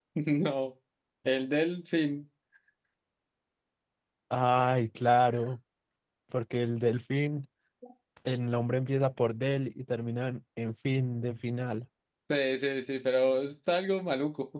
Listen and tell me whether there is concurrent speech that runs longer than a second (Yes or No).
No